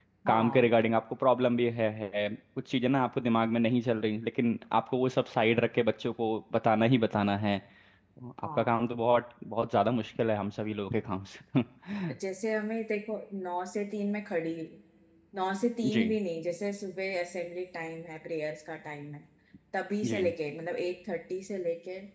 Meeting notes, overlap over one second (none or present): none